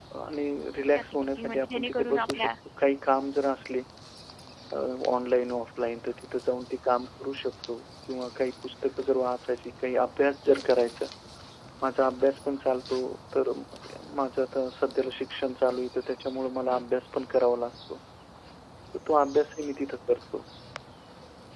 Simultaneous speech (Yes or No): Yes